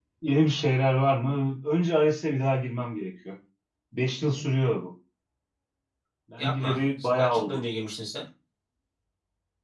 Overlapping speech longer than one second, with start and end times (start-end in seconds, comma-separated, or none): 6.4-7.6